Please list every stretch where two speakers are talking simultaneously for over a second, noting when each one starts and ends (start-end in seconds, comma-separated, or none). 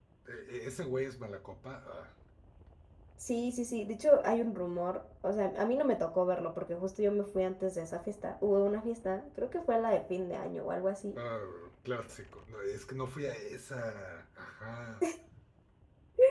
none